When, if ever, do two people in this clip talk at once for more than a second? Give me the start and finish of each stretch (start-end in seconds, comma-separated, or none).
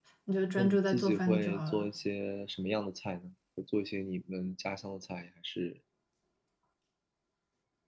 0.6-1.9